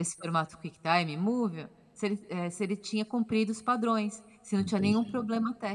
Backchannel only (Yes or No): Yes